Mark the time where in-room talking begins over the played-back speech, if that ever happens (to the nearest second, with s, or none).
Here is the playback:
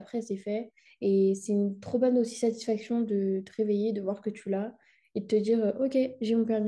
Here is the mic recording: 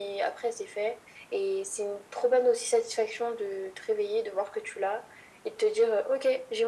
none